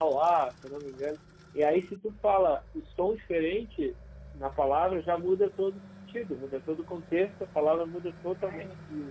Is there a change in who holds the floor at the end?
No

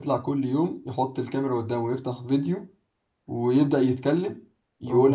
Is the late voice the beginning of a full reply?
No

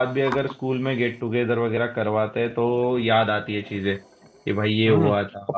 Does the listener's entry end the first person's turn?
Yes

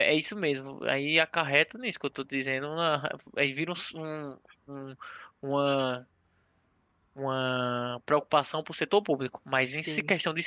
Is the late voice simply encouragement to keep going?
Yes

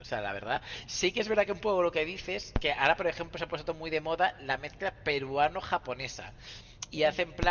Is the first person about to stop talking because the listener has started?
No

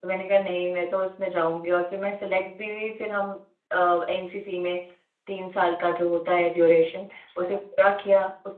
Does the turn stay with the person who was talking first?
Yes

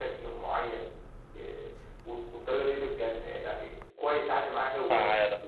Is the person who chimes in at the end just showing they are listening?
Yes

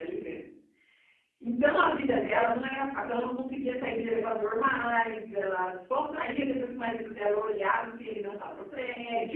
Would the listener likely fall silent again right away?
No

